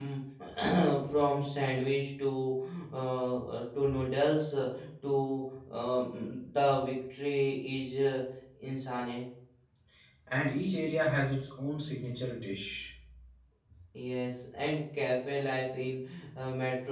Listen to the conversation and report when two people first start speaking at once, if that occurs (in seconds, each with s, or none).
none